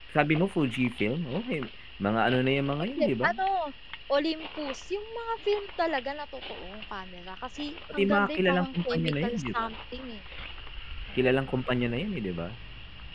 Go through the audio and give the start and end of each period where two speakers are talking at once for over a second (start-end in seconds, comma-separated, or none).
7.9-9.7